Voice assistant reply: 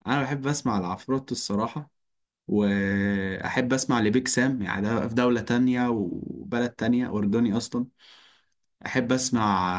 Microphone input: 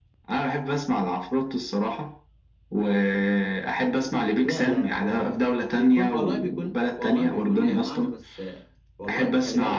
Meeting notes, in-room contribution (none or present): present